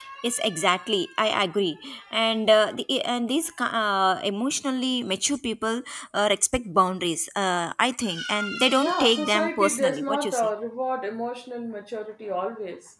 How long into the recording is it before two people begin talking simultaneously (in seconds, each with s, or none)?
8.8 s